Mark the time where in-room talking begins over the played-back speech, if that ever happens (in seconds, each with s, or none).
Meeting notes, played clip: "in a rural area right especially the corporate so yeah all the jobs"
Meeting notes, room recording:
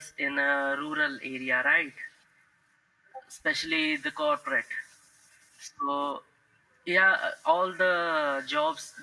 none